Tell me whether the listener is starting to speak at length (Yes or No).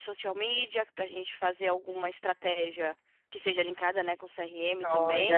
Yes